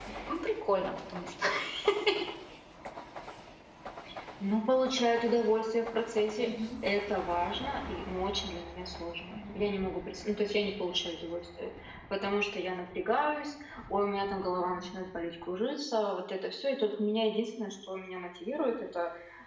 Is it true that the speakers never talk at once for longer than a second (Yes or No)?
Yes